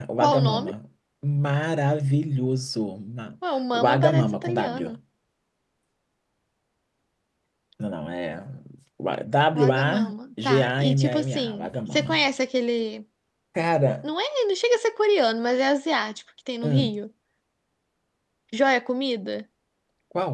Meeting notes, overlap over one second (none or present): present